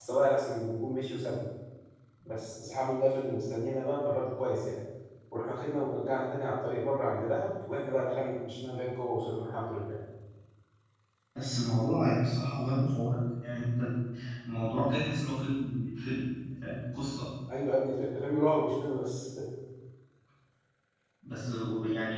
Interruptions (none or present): none